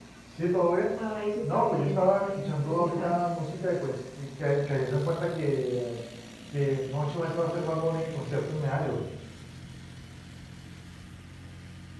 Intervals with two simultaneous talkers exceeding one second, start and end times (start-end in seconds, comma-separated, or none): 1.4-3.2